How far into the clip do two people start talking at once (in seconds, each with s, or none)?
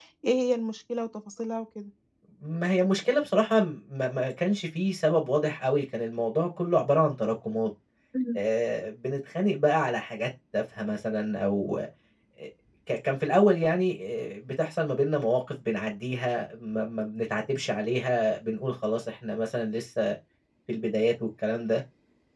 none